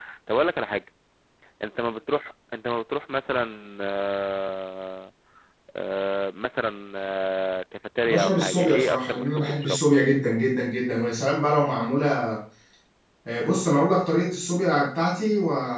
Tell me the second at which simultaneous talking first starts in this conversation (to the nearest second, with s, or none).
8 s